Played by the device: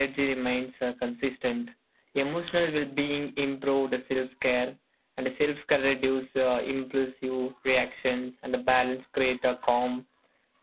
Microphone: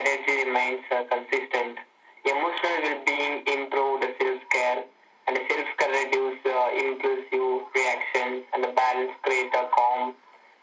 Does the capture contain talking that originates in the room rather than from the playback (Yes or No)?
No